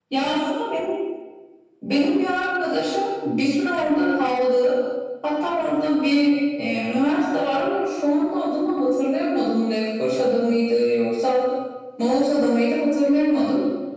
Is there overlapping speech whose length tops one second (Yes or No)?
No